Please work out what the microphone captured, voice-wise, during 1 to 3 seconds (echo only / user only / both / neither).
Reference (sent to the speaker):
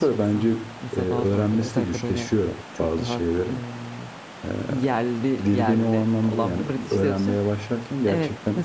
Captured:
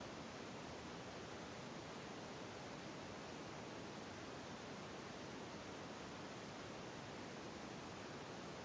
neither